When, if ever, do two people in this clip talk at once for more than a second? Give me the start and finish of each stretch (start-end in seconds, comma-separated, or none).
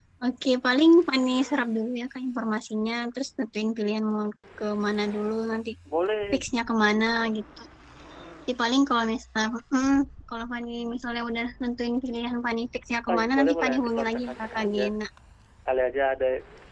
13.1-14.8